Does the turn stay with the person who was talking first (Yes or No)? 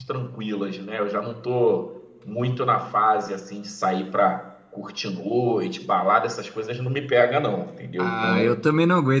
No